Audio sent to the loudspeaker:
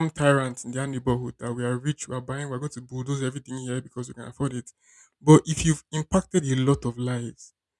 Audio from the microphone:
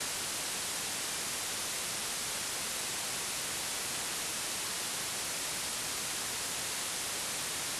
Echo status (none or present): none